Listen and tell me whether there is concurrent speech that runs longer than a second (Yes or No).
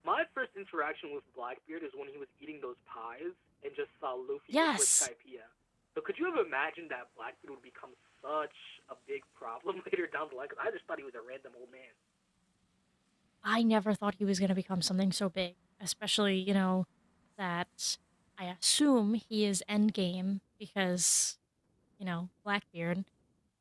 No